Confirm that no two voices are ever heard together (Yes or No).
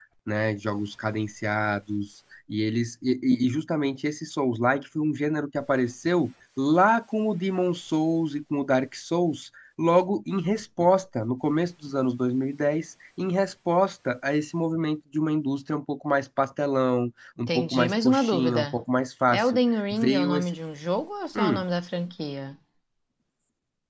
No